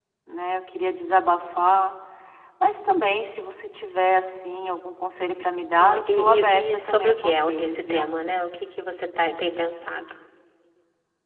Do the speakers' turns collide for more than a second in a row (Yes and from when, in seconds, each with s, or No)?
Yes, from 5.8 s